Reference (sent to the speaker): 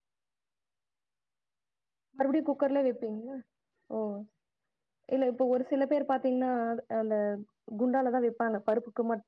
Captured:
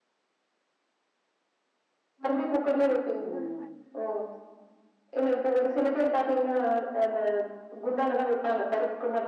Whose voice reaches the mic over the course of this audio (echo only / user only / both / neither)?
both